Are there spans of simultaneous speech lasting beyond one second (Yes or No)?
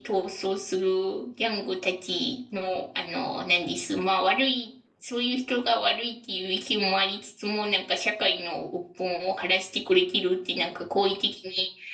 No